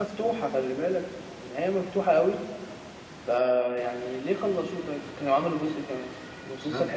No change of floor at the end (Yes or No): Yes